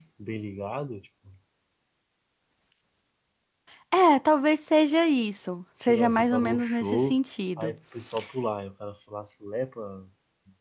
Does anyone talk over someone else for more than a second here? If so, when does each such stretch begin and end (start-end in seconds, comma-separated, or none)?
5.9-7.2